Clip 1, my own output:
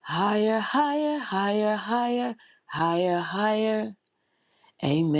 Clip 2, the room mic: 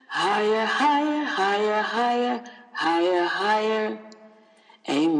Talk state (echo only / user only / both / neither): echo only